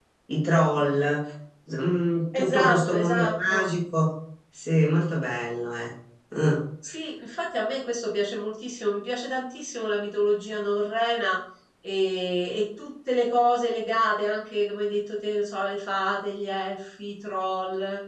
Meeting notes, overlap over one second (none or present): present